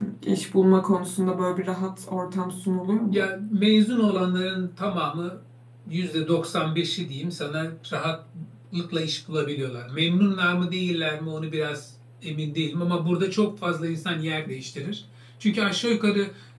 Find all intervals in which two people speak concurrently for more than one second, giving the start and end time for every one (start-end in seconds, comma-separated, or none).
none